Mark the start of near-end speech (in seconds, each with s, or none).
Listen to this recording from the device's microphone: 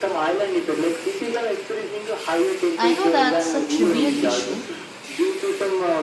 2.8 s